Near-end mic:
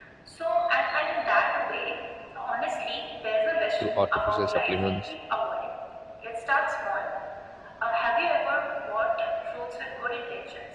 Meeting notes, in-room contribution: present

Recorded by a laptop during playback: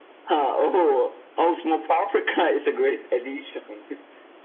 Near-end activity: none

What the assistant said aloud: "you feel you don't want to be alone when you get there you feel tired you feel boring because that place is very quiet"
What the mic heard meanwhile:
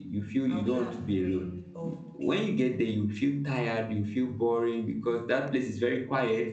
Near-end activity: present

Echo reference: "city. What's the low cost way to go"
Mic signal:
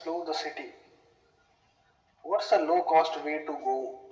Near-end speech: none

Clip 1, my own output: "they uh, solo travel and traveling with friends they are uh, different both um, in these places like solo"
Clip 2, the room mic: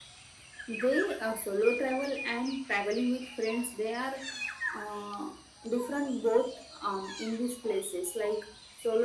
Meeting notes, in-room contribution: none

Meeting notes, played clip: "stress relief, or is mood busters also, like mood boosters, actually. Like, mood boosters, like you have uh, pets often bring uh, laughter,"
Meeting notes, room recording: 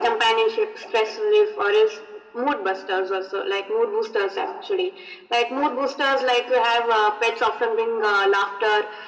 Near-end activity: none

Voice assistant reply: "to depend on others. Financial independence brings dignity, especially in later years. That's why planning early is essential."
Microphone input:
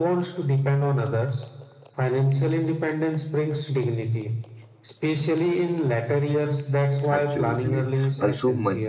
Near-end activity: present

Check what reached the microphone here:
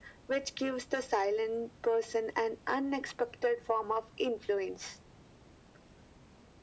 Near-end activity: none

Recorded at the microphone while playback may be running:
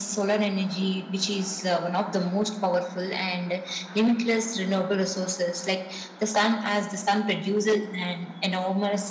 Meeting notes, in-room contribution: none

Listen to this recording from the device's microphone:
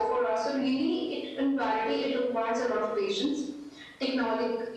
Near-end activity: none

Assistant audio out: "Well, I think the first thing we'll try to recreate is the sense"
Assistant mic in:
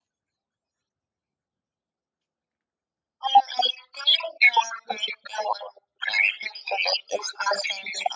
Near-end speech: none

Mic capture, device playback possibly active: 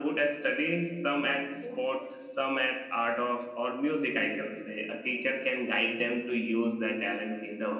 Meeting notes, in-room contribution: present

